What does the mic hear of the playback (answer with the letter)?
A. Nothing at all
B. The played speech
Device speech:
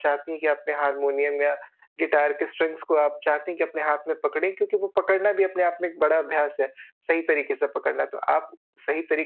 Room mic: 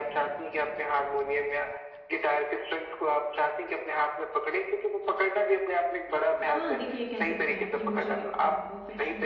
B